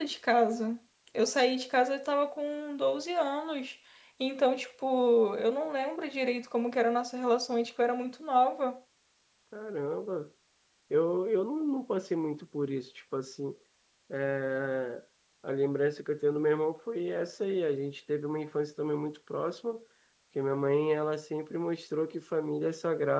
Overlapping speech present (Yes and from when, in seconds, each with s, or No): No